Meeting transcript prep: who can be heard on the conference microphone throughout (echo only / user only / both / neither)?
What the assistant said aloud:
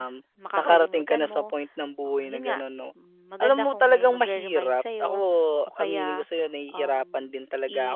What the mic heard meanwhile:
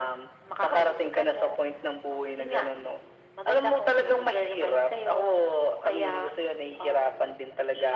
echo only